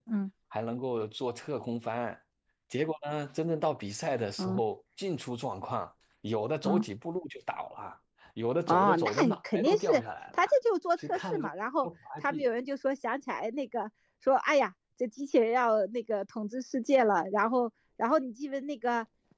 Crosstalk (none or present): present